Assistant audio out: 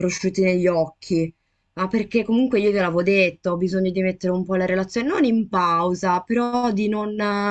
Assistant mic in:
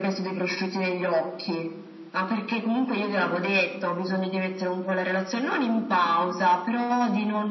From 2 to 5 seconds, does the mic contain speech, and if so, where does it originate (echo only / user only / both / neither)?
echo only